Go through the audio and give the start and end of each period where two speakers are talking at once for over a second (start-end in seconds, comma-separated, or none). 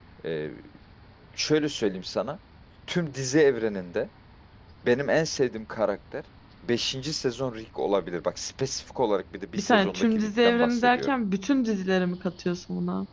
9.6-11.1